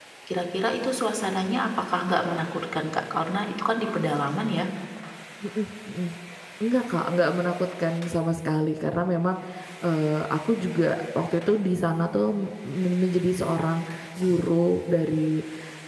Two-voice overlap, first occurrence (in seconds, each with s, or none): none